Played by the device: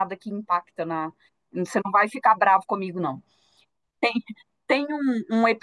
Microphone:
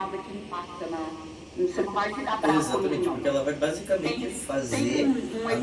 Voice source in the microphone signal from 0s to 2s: echo only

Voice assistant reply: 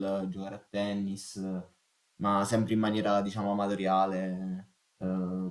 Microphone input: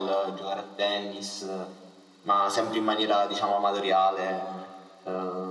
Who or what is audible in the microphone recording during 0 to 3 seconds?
echo only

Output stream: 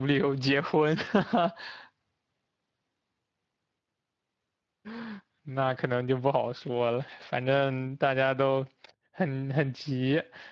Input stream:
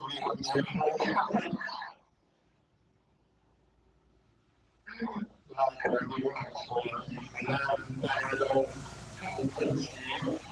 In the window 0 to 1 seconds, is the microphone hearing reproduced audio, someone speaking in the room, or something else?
echo only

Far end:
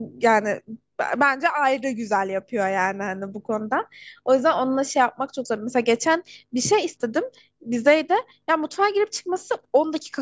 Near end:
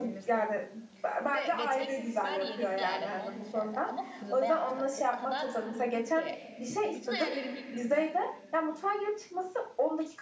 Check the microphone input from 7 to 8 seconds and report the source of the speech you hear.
both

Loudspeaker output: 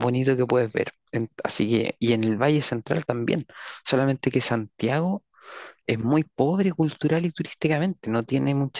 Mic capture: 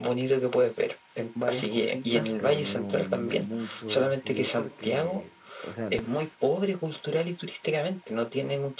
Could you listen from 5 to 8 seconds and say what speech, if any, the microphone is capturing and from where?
both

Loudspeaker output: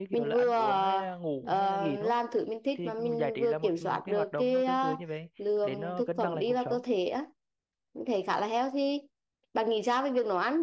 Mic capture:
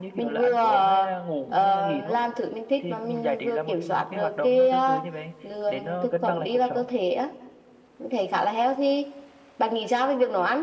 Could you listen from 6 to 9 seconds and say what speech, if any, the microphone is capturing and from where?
echo only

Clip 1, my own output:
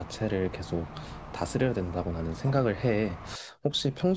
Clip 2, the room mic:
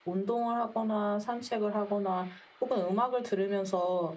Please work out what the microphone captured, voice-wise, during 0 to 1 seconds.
user only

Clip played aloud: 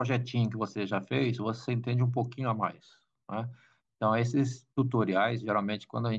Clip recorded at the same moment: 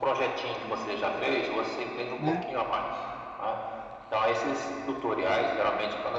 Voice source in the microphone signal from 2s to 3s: both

